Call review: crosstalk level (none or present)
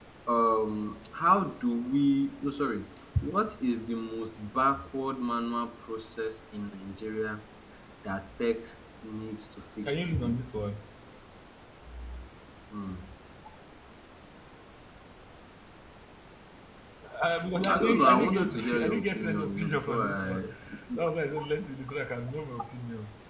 present